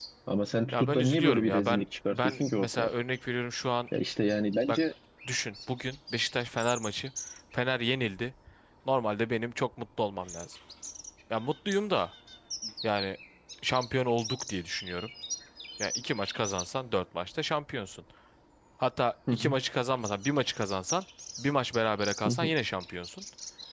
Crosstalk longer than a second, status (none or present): present